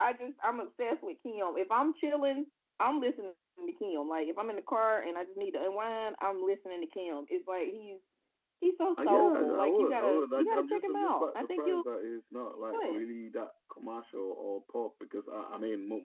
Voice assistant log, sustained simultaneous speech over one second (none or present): present